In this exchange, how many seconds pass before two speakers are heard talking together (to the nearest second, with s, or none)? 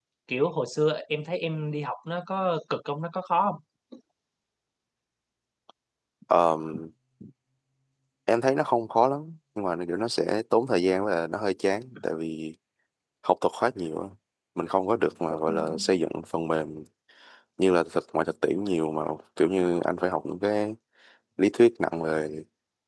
none